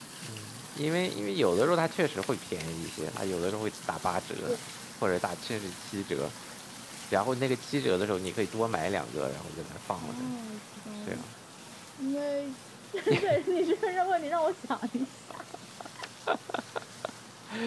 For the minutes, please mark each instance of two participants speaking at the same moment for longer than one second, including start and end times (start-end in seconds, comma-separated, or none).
none